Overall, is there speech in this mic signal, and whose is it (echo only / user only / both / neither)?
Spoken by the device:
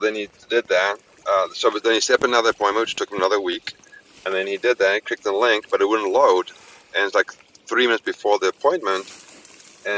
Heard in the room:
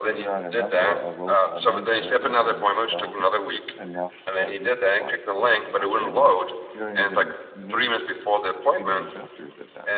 both